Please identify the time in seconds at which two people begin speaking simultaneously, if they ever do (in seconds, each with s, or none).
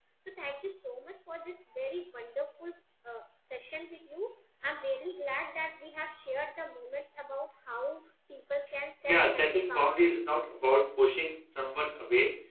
9.0 s